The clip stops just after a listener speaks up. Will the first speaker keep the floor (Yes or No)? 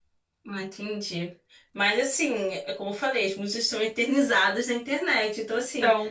Yes